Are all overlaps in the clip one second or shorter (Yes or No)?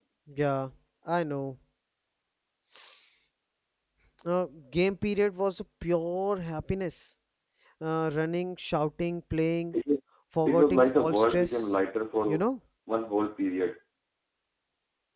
No